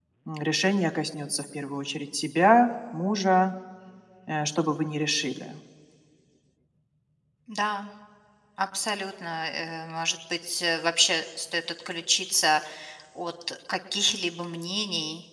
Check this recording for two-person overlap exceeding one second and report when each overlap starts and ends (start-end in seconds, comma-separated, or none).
none